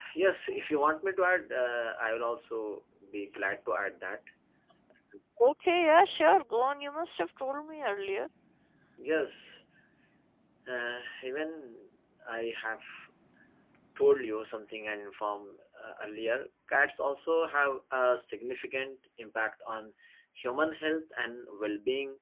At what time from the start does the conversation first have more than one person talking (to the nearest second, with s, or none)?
none